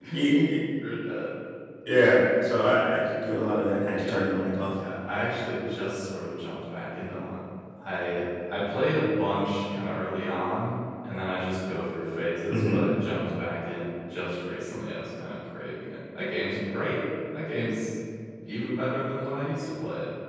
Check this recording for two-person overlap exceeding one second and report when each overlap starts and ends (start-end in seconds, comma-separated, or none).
none